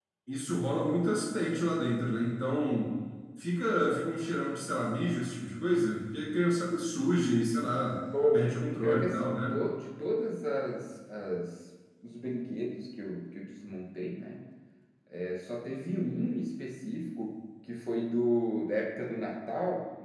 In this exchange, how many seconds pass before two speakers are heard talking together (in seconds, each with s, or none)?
8.1 s